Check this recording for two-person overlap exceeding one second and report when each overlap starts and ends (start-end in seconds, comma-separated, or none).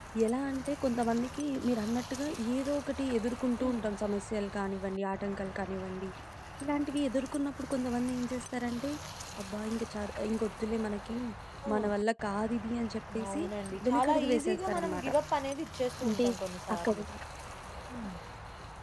13.9-15.1